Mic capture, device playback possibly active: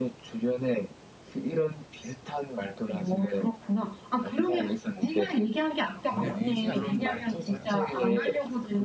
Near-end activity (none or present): present